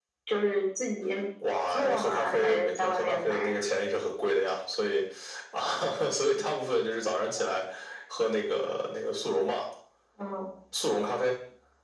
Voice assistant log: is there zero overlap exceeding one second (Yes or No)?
No